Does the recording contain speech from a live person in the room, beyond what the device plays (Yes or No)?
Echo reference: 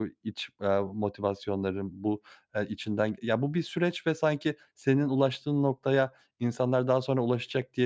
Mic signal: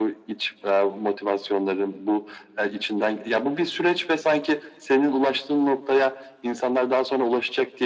No